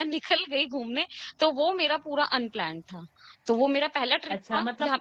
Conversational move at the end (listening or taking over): taking over